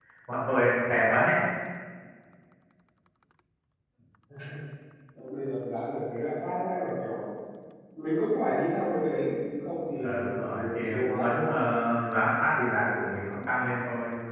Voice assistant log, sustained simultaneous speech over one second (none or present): present